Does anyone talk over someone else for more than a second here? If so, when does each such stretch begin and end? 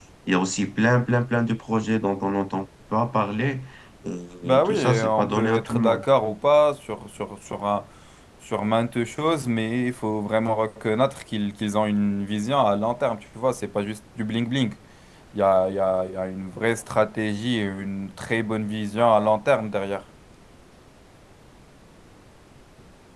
4.4-6.0

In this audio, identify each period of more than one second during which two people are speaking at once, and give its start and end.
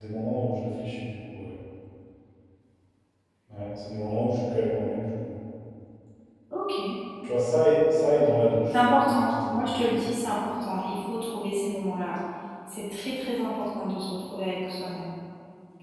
8.7-9.9

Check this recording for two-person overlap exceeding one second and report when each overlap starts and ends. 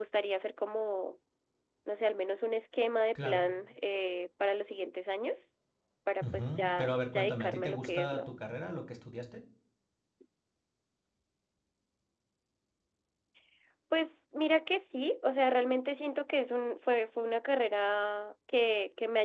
6.2-8.3

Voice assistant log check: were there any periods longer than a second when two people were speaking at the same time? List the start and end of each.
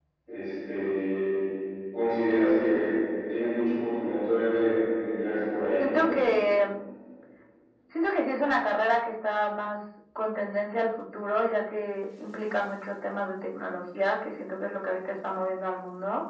none

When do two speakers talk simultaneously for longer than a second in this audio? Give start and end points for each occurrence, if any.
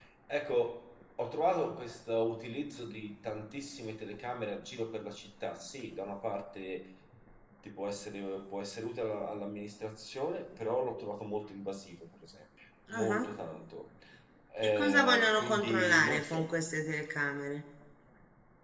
14.6-16.5

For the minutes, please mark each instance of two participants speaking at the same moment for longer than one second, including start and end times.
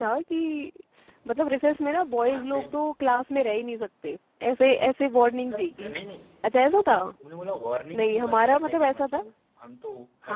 8.0-9.2

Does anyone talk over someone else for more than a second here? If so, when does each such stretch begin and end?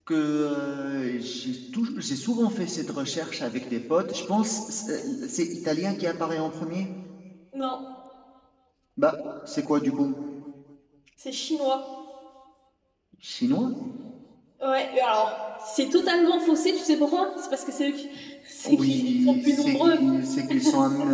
18.6-20.1

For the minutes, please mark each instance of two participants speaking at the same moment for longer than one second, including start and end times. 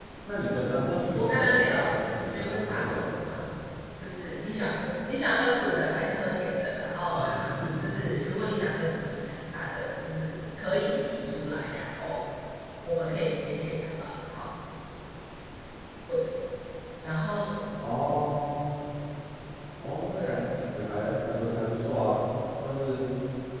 1.1-3.4

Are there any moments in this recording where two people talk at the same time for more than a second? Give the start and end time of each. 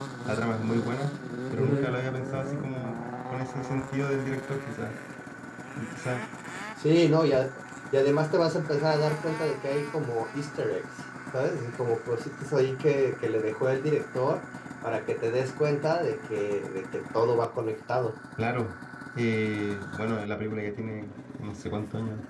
none

